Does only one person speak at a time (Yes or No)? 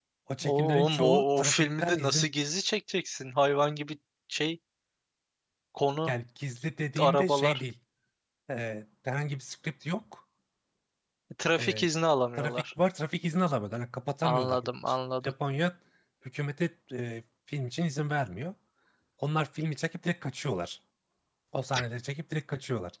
No